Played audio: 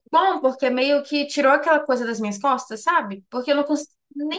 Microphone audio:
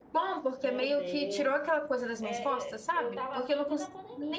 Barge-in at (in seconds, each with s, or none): 0.6 s